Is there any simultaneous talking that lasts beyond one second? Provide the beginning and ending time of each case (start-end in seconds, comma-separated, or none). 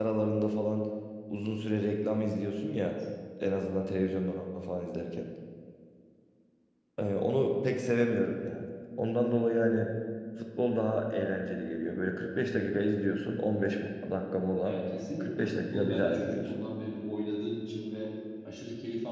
15.2-16.6